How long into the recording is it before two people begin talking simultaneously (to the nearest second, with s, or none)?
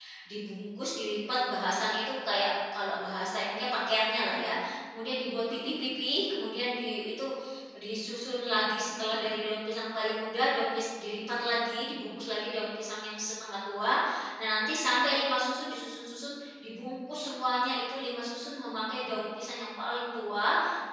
none